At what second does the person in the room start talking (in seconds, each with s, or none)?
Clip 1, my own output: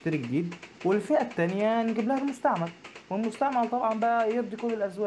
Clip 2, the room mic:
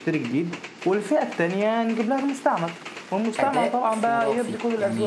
3.4 s